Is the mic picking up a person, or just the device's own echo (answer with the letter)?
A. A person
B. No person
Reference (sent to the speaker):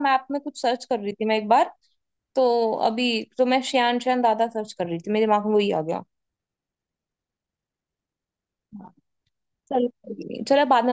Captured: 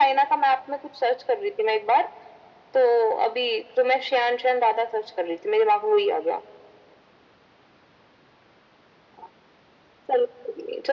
B